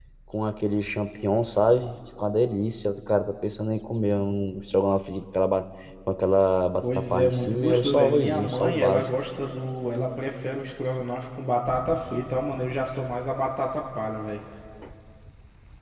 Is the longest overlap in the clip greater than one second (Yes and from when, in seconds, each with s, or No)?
Yes, from 6.8 s